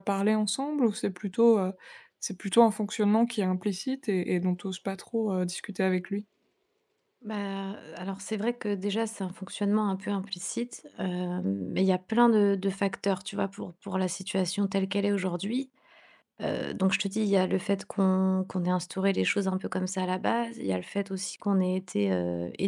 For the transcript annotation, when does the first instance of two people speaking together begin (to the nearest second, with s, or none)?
none